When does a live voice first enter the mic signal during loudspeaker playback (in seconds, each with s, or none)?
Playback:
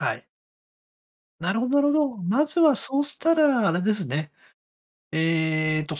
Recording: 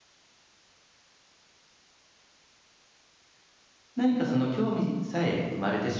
3.9 s